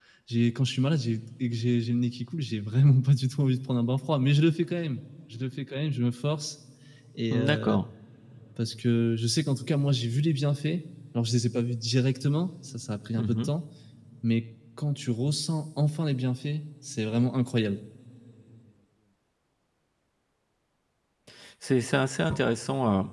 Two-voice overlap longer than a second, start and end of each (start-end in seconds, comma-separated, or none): none